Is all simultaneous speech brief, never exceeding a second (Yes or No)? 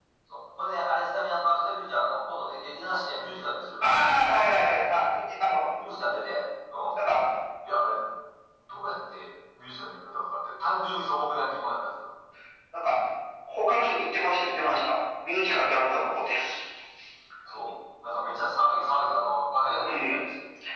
Yes